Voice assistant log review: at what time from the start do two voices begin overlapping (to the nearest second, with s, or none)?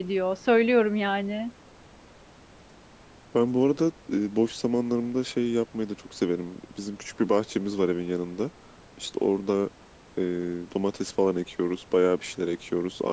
none